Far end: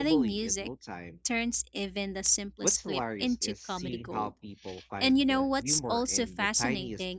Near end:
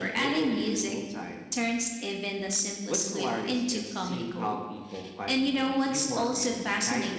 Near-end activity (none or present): none